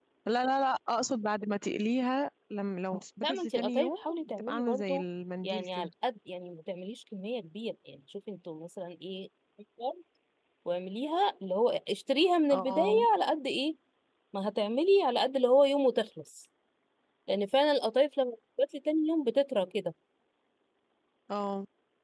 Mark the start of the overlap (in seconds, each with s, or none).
3.2 s